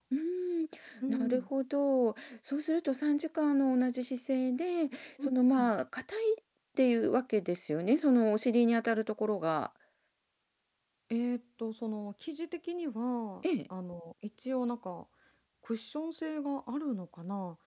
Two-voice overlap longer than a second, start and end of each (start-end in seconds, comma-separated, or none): none